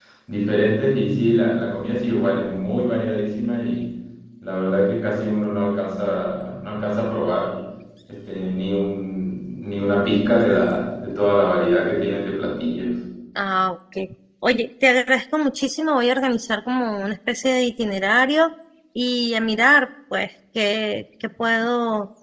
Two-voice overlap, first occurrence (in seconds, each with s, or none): none